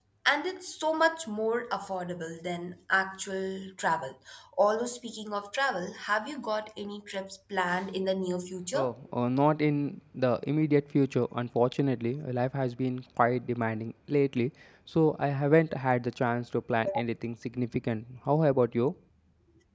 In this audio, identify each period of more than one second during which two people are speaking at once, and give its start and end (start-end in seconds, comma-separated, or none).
none